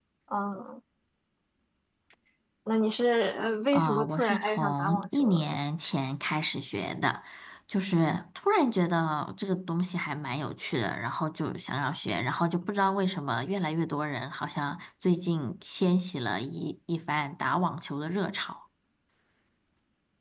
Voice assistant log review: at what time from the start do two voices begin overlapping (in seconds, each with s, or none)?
3.7 s